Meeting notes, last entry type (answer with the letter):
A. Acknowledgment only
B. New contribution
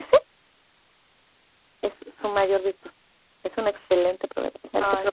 A